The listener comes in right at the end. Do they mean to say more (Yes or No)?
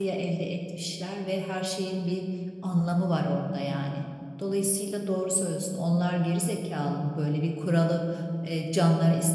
No